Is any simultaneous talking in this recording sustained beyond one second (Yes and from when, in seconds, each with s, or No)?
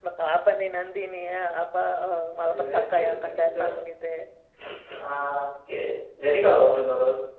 Yes, from 2.3 s